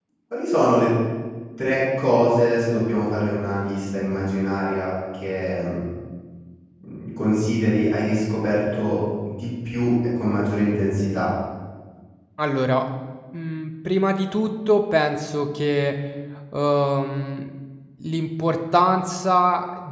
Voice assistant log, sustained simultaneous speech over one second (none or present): none